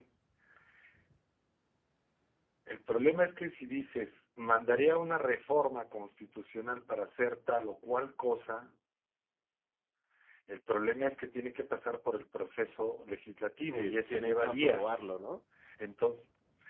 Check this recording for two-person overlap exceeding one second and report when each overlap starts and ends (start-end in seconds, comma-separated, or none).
13.6-15.1